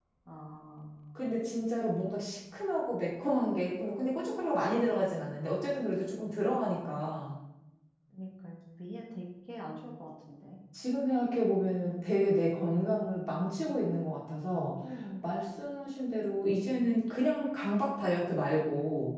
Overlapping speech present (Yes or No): No